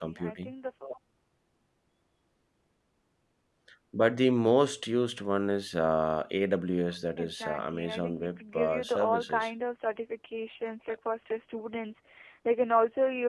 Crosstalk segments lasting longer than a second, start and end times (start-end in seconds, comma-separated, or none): 7.2-9.5